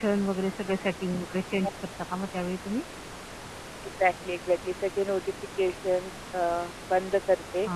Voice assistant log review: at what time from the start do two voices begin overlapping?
none

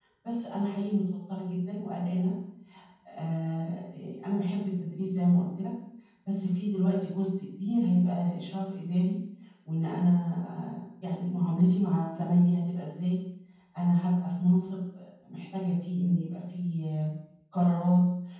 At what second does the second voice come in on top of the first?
none

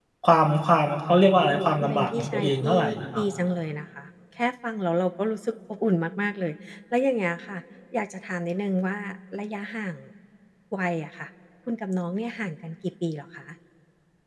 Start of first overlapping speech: 1 s

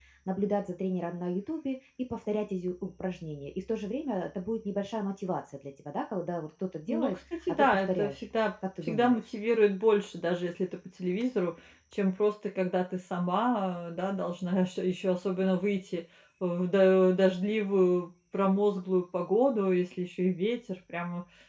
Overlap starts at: 7 s

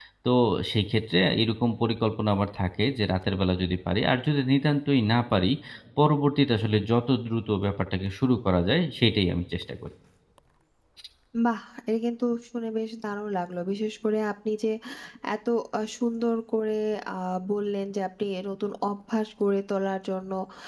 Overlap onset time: none

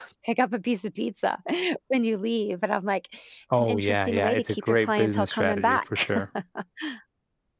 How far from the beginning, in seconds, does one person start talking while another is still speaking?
4 s

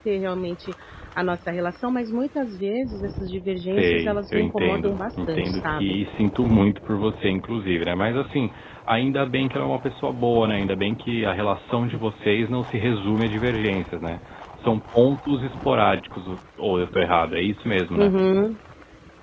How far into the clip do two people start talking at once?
4 s

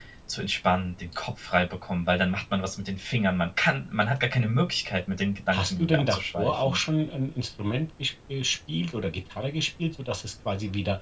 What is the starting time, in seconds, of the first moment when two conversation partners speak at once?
6 s

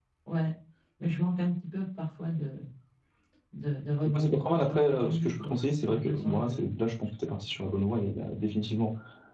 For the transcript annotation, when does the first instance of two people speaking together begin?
4 s

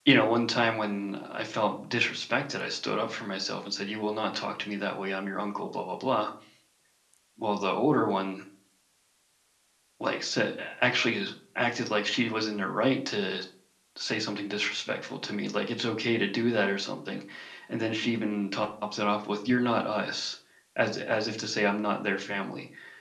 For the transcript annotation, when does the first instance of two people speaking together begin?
none

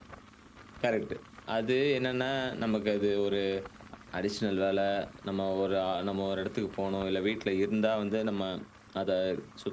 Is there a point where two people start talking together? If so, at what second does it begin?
none

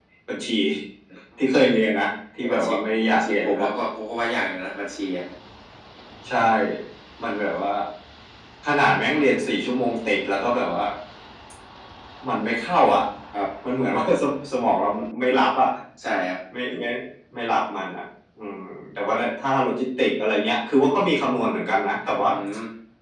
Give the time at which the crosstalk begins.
2 s

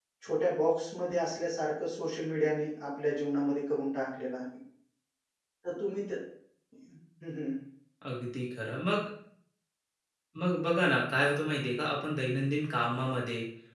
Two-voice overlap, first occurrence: none

